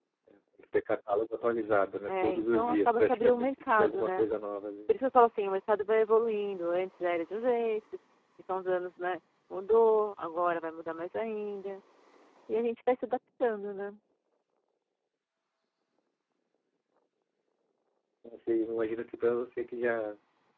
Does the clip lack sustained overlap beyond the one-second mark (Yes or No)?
No